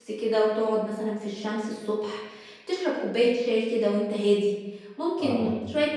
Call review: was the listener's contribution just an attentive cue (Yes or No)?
Yes